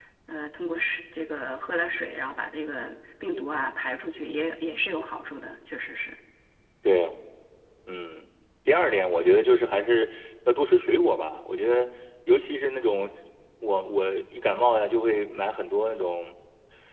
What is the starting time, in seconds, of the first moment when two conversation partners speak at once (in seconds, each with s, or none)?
none